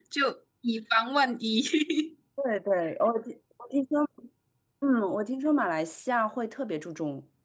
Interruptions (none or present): none